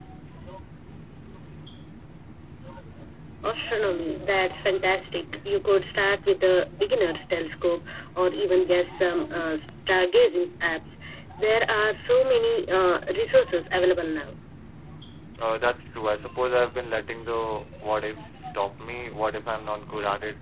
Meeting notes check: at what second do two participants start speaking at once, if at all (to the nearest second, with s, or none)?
none